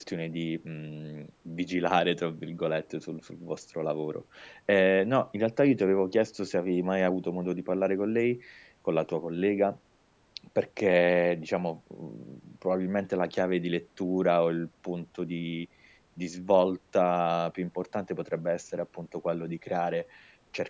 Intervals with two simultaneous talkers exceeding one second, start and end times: none

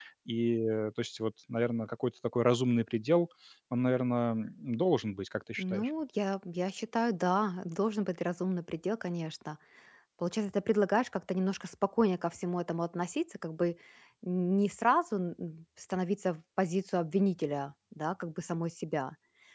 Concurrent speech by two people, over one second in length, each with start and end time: none

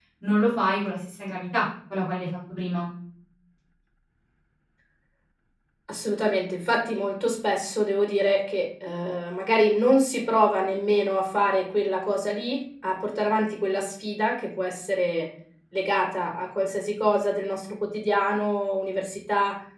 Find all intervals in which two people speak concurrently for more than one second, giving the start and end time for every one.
none

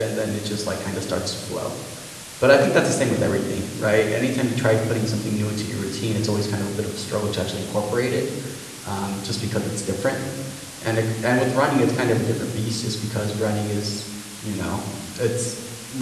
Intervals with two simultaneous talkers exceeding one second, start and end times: none

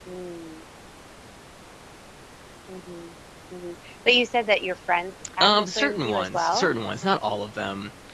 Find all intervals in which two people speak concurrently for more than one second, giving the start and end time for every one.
5.4-6.7

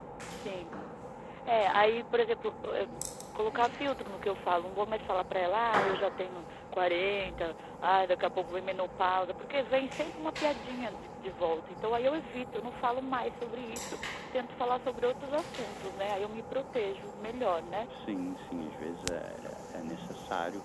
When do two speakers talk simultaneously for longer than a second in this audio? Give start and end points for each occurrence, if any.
none

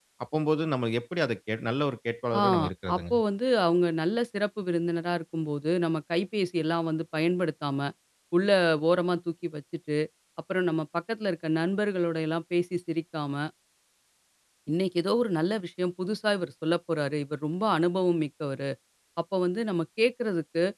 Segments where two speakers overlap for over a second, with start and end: none

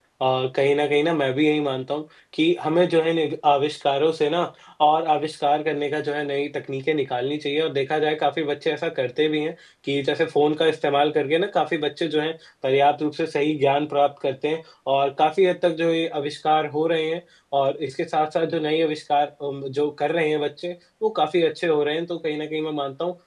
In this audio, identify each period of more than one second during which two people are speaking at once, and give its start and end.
none

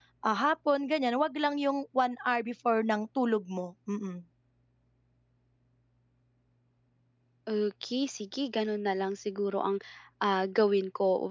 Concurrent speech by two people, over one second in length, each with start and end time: none

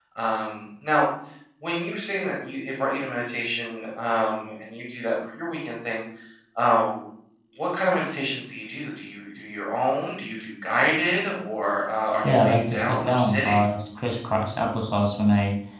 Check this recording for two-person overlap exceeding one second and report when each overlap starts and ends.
12.2-13.7

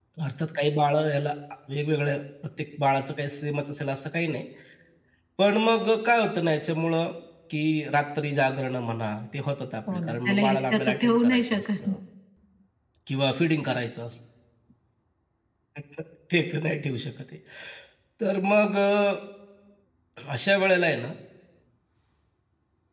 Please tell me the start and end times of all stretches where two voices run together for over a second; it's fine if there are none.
9.9-11.9

